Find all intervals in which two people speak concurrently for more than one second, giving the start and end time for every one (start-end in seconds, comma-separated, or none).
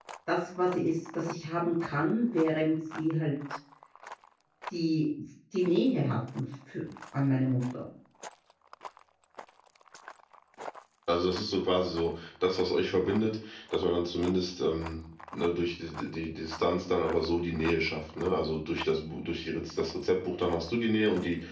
none